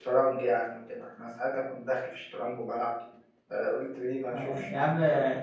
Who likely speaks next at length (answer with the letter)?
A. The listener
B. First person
A